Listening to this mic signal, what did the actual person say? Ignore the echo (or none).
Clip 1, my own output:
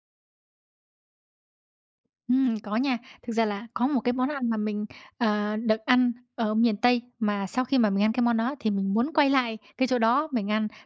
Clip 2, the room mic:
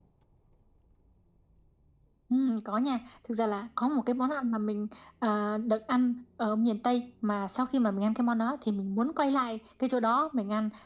none